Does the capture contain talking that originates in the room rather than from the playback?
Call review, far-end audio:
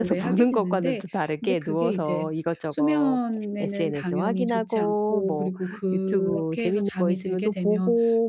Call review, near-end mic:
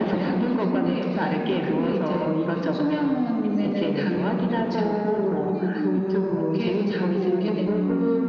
Yes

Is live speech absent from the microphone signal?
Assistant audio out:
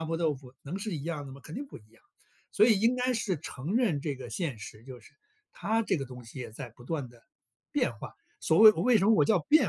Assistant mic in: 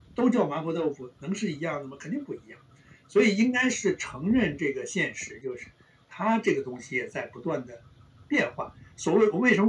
Yes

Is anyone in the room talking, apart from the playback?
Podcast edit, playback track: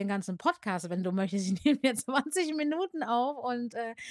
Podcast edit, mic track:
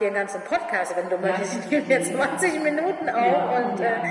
Yes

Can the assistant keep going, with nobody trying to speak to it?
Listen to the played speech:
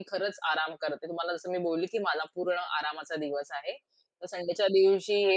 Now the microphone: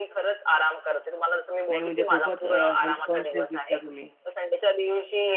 No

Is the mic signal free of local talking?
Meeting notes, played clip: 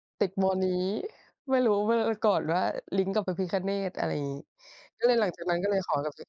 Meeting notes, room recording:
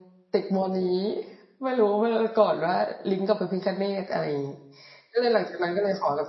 Yes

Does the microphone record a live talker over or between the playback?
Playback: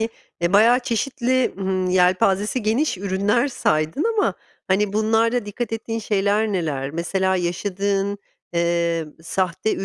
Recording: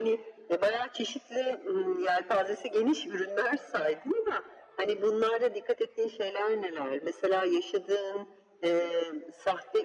No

